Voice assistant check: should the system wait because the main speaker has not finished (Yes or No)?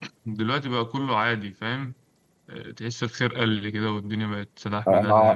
No